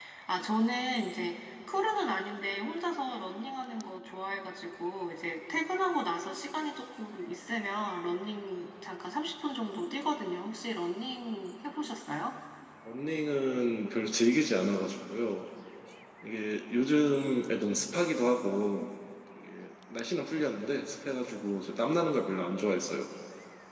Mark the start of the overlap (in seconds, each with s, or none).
none